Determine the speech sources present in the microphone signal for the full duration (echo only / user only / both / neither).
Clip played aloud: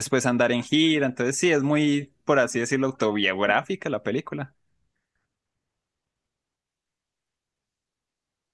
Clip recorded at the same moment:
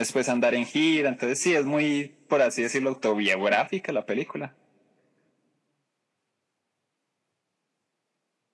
echo only